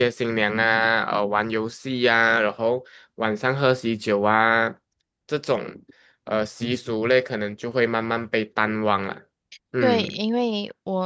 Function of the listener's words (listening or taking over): taking over